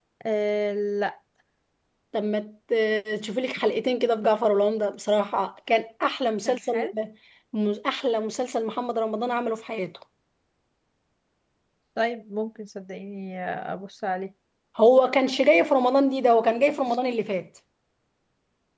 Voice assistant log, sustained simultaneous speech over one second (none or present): none